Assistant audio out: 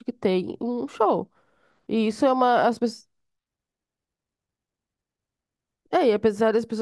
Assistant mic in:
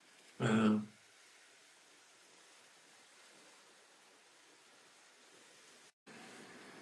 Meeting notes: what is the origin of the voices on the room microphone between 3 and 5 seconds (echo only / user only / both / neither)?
neither